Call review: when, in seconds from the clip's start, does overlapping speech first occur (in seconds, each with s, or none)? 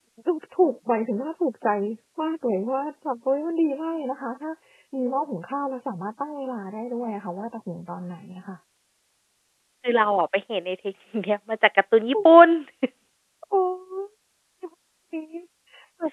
none